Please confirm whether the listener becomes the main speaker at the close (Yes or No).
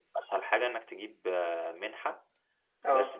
No